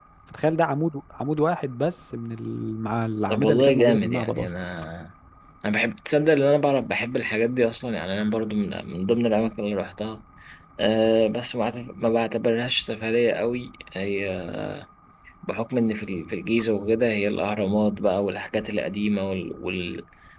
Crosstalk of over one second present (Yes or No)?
Yes